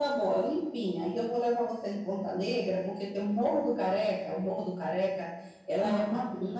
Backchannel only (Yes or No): Yes